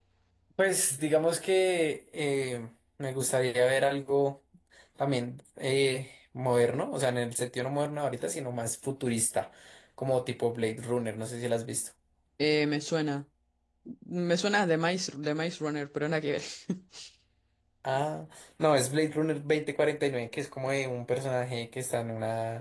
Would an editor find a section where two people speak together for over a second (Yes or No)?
No